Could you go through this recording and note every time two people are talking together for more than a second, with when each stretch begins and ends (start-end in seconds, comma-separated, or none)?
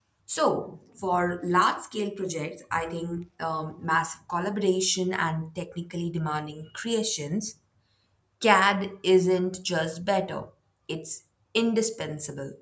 none